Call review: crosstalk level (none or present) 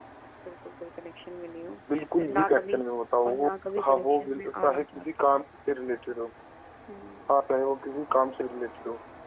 present